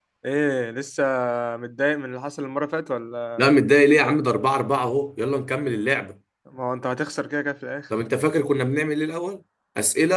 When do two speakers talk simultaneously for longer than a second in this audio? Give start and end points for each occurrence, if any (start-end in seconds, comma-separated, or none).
none